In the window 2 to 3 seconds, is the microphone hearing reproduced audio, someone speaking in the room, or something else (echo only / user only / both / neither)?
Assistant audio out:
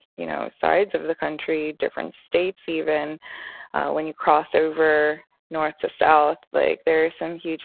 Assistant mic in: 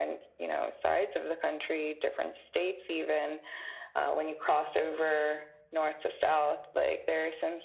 echo only